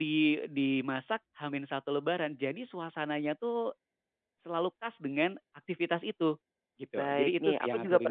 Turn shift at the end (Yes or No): Yes